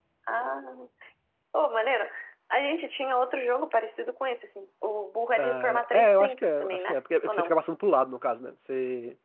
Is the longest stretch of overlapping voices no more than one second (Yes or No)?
No